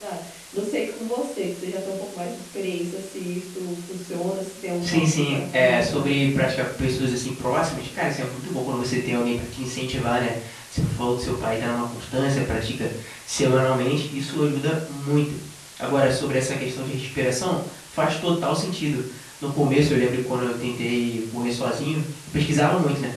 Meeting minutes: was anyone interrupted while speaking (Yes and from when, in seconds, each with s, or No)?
Yes, from 4.8 s